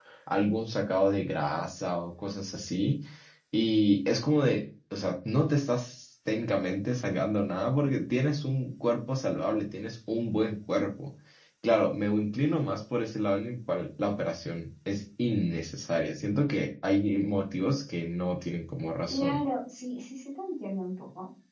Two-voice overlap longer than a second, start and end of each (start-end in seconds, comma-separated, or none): none